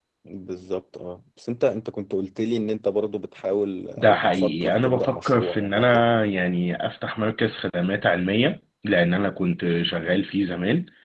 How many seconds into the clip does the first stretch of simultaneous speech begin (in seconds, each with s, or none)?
4.0 s